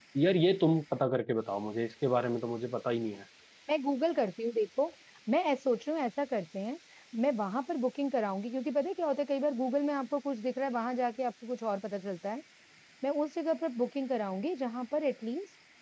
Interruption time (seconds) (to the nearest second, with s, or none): none